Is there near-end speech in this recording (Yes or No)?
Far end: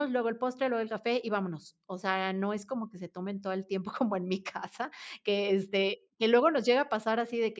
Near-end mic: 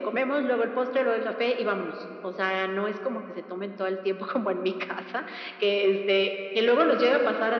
No